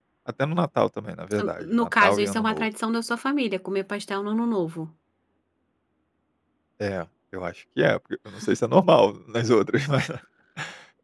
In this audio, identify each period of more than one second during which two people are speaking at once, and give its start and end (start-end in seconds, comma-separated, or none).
1.4-2.7